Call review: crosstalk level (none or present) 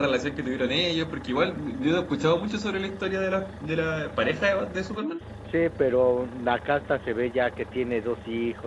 none